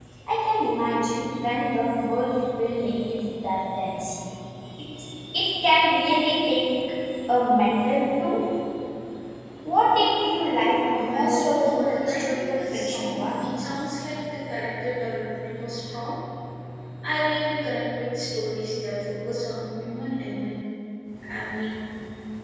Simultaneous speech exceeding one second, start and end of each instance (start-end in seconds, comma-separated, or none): 11.0-13.5